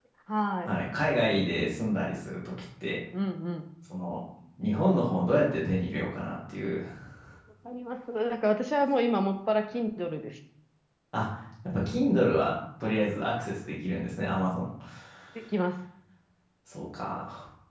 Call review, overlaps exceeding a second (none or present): none